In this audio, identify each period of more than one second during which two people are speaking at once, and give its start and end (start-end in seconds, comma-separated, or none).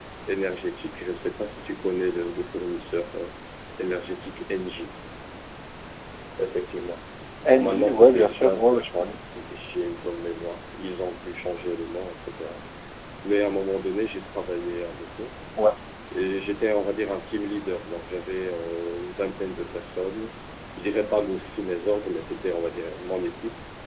7.5-9.2